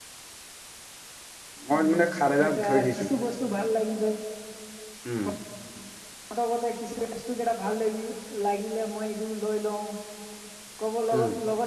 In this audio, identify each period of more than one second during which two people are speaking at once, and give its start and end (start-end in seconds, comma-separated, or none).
1.7-3.1